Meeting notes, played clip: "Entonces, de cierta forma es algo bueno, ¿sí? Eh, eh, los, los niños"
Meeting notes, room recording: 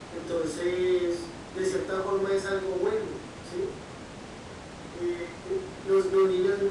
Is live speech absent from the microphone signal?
Yes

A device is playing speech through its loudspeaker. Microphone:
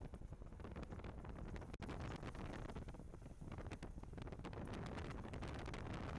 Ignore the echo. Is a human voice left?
No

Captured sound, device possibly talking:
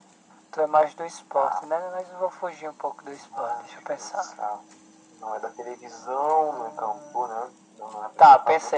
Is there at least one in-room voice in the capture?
No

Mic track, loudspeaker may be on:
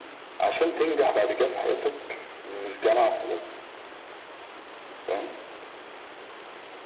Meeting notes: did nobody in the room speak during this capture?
Yes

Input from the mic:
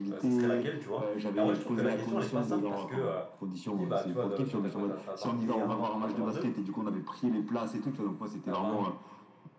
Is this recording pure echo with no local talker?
No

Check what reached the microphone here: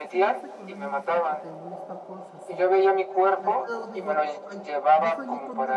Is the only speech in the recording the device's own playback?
No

